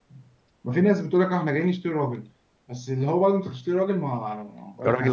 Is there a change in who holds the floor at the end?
No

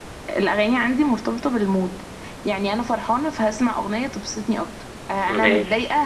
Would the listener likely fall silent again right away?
Yes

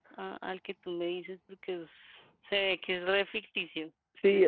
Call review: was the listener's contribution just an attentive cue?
No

